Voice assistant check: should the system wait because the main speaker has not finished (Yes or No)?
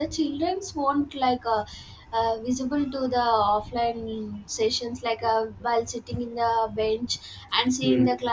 Yes